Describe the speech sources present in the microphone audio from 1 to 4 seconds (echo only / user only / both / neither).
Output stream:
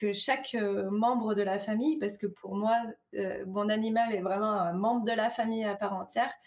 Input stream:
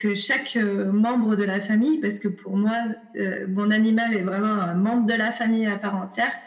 echo only